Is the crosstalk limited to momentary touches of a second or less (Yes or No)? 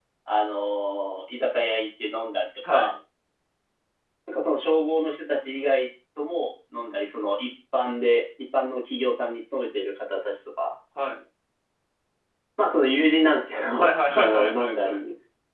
No